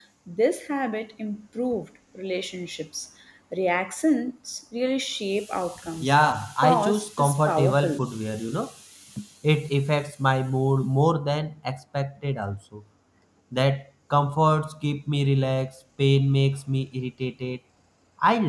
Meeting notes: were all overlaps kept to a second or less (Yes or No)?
No